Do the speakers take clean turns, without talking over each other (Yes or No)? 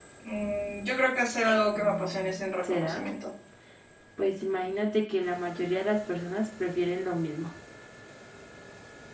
No